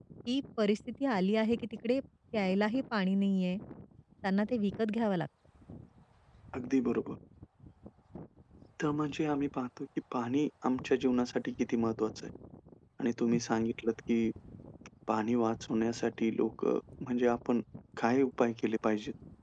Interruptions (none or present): none